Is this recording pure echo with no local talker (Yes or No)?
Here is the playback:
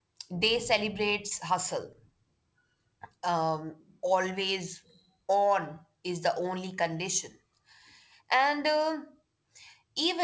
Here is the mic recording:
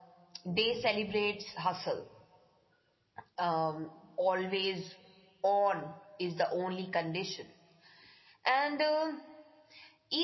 Yes